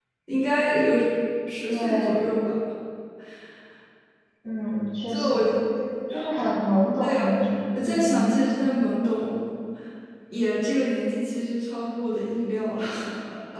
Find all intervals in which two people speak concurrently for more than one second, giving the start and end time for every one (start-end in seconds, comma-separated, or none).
none